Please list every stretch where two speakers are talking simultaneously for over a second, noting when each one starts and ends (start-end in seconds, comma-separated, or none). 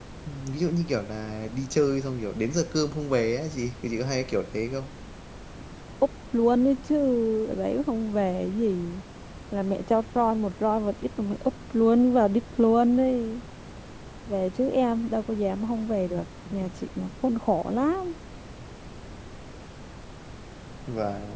none